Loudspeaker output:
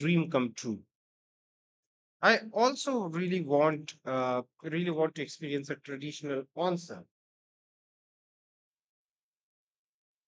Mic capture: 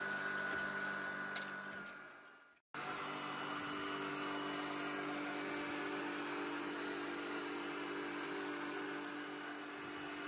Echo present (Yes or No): No